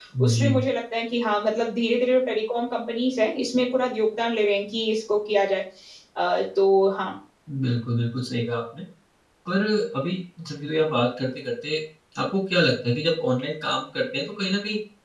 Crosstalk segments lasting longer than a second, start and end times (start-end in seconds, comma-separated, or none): none